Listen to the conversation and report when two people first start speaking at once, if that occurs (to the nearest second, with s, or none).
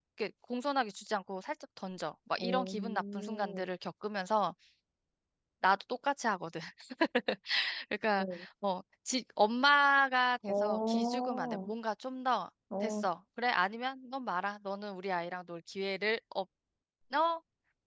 2 s